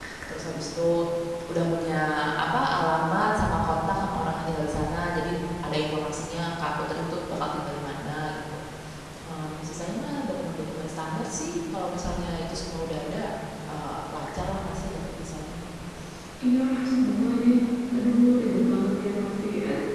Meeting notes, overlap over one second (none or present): none